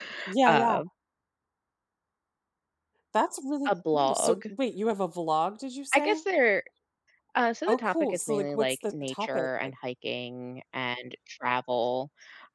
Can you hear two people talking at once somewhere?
Yes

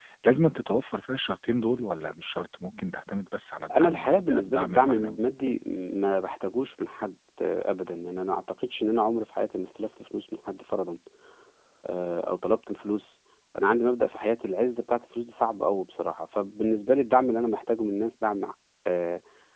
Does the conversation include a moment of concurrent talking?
Yes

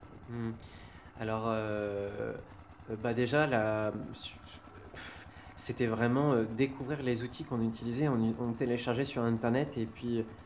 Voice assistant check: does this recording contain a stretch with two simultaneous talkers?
No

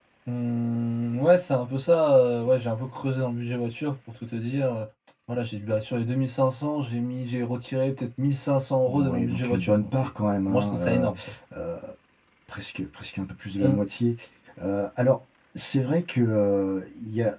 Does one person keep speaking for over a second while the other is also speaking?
Yes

